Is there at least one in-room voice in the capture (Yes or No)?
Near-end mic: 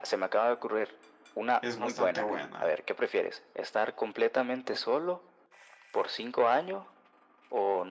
Yes